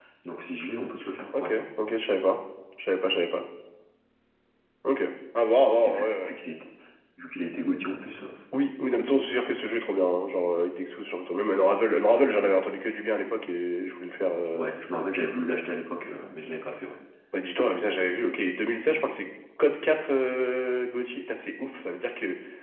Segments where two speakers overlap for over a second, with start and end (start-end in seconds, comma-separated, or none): none